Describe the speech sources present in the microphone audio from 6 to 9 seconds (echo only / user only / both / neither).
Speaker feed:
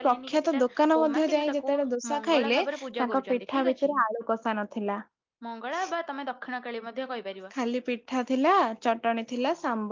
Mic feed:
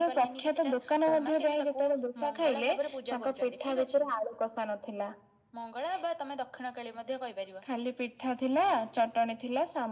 echo only